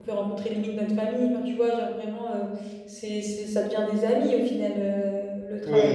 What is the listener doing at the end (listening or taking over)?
taking over